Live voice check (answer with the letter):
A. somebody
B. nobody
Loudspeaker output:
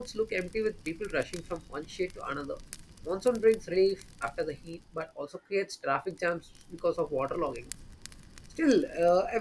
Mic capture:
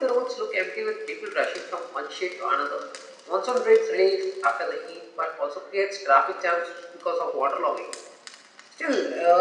B